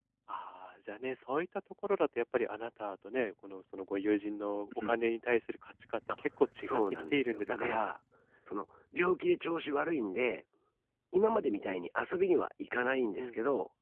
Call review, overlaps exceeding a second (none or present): present